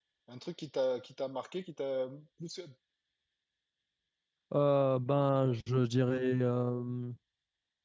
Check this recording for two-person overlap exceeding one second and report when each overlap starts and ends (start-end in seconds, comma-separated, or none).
none